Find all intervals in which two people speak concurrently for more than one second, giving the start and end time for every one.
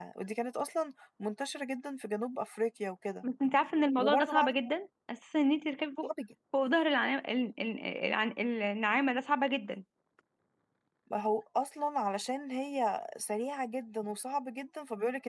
none

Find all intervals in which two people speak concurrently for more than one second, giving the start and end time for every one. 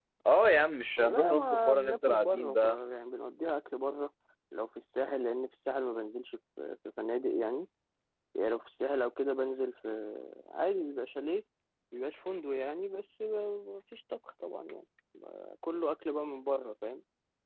1.0-2.8

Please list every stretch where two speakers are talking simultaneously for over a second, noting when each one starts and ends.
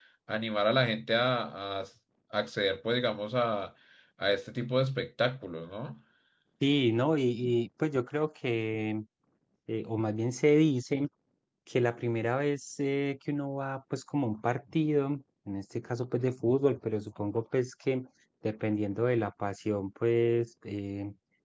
none

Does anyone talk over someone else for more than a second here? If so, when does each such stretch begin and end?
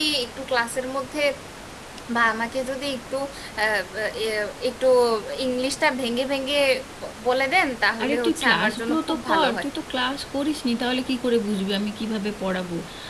8.0-9.7

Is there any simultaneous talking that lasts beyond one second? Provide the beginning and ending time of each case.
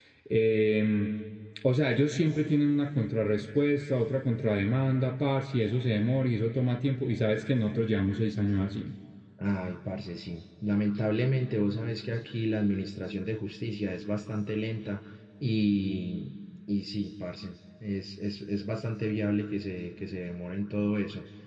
none

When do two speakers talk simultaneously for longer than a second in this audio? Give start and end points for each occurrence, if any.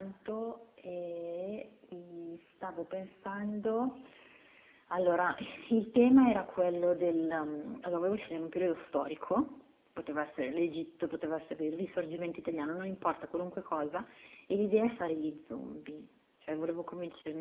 none

